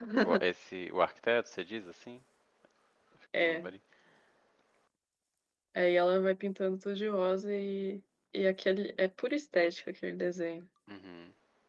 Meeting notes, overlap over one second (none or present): none